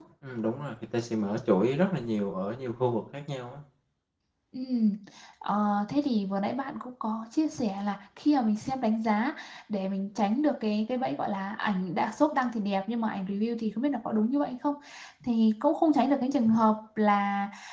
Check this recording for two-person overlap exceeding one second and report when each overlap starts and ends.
none

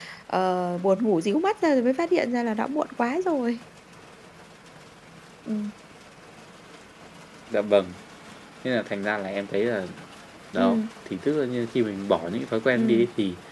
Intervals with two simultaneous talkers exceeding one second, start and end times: none

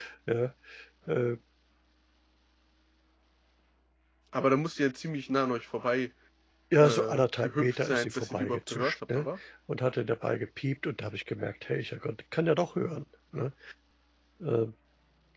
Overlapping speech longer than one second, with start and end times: 6.8-9.2

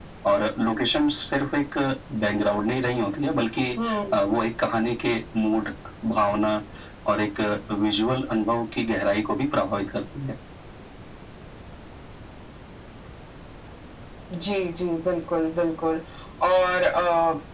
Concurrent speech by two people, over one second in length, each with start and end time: none

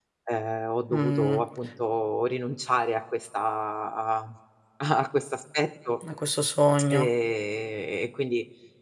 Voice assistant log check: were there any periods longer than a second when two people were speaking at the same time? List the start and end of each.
none

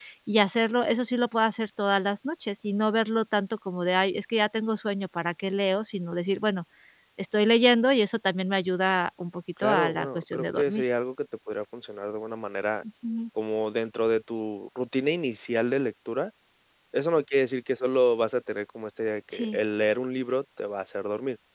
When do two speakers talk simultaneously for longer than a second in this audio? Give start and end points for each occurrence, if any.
9.6-10.8

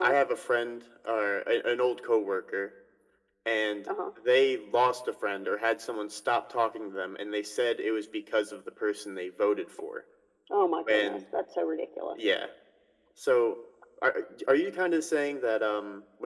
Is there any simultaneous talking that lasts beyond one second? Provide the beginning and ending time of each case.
none

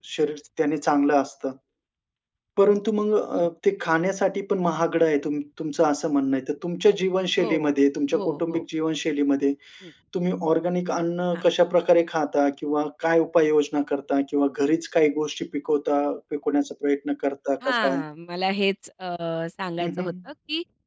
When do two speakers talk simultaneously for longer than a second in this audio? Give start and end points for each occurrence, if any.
none

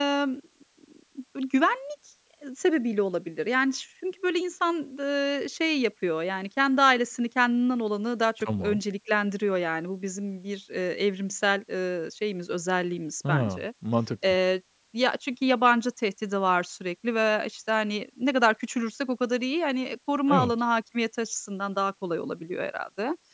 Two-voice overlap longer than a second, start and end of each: none

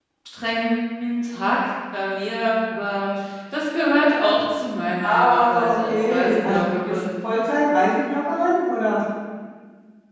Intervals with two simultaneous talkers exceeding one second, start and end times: 5.0-7.0

